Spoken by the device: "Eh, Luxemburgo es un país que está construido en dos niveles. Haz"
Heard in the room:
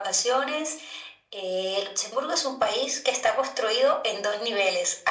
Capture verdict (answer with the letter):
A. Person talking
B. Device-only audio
B